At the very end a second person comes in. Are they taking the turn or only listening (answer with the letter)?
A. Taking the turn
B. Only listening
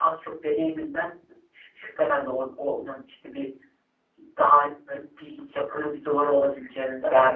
A